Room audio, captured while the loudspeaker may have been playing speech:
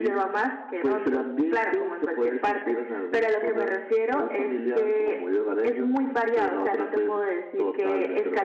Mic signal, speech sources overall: echo only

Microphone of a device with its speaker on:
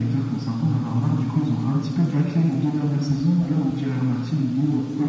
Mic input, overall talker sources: echo only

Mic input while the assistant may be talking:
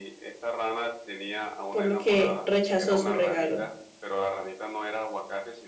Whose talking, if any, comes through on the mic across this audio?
both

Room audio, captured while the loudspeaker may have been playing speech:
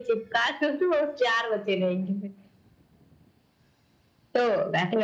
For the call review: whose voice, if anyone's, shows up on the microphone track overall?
echo only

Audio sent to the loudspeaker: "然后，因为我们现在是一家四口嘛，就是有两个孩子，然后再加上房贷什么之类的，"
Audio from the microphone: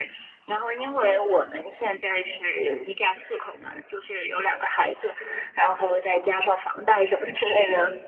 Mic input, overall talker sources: echo only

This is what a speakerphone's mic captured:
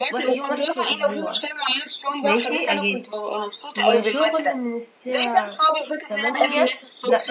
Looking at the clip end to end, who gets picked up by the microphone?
both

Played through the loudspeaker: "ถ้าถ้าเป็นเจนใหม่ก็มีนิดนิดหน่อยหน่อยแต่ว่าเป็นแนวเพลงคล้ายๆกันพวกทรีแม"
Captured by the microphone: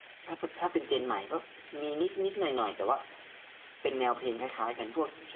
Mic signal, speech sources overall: echo only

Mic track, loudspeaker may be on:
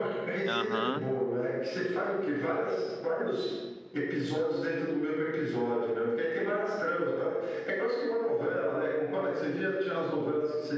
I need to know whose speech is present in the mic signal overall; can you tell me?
both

